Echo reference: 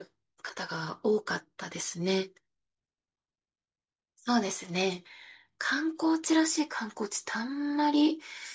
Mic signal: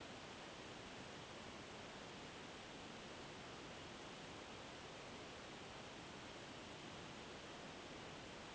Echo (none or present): none